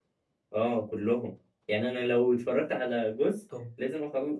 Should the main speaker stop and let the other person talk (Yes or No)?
No